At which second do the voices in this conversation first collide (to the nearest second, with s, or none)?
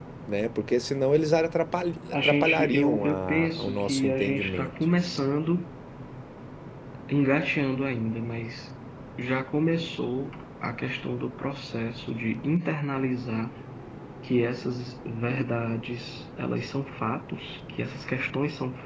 2 s